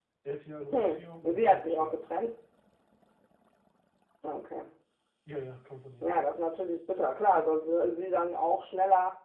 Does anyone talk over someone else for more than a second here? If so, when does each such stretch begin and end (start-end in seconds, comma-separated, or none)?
0.7-2.1